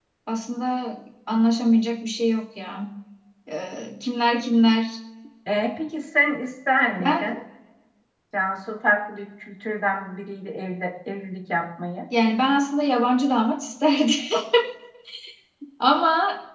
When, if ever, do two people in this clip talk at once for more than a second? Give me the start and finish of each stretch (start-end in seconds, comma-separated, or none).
none